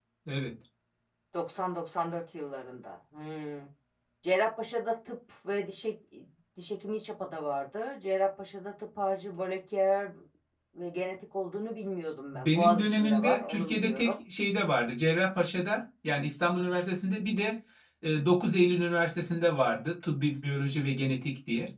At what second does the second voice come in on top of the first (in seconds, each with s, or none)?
12.3 s